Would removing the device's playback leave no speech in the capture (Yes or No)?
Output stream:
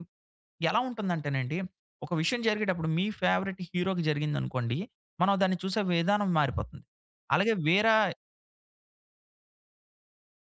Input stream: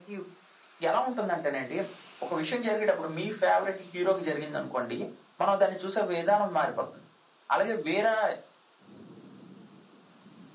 Yes